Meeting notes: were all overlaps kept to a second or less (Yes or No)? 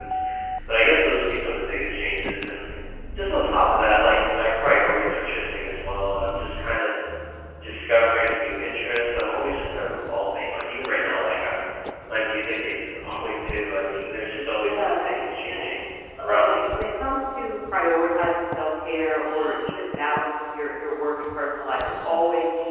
No